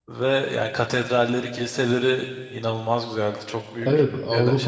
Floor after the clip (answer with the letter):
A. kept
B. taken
B